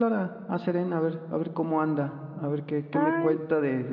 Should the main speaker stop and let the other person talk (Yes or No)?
No